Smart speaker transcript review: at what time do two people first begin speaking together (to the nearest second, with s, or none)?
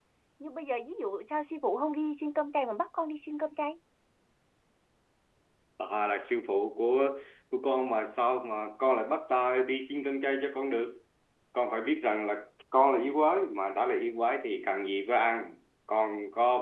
none